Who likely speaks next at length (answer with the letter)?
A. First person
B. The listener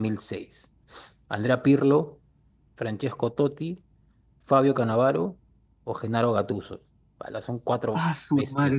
B